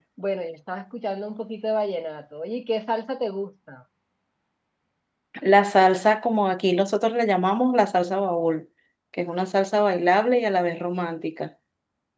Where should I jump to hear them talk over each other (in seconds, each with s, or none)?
none